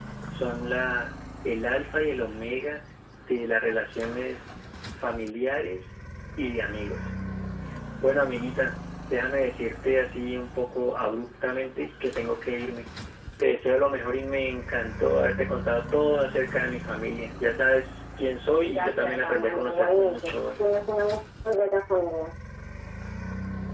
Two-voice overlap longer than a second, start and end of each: 18.6-20.4

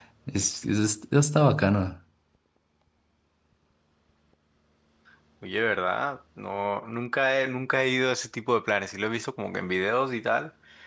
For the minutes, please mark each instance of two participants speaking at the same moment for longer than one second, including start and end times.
none

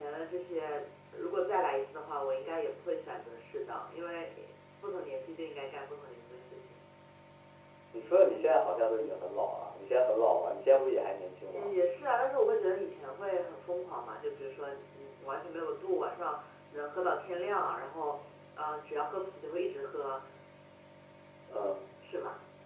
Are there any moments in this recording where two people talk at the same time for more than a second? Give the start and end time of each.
none

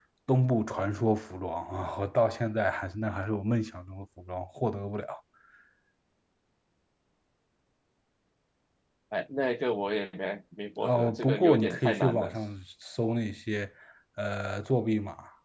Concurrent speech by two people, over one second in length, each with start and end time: 10.8-12.3

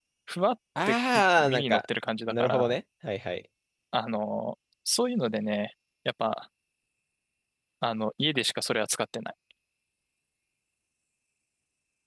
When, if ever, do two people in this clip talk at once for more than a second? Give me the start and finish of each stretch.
none

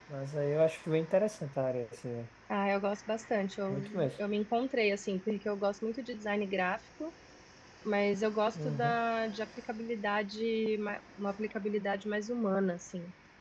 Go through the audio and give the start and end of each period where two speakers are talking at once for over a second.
none

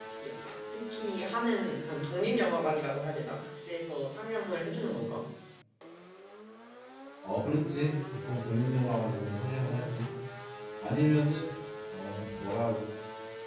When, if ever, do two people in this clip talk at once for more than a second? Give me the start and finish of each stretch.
none

